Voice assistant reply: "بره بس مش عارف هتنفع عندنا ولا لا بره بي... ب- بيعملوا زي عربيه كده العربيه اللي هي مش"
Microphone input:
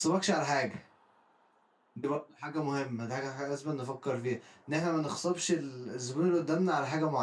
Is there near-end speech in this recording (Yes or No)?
Yes